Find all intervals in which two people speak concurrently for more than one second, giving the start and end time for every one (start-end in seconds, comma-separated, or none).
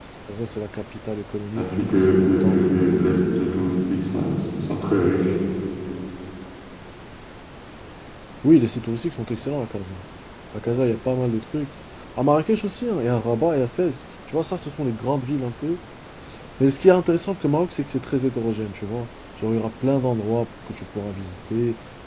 1.6-3.4